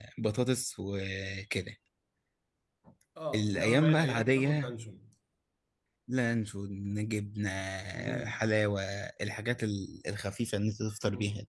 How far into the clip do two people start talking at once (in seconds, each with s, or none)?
3.3 s